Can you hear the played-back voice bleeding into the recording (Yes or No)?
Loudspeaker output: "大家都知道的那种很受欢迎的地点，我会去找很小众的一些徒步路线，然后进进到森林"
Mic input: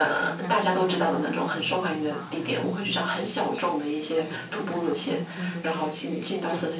Yes